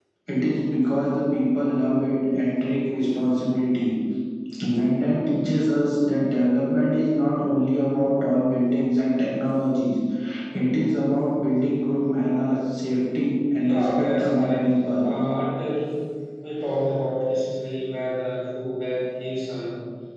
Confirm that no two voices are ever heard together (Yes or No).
No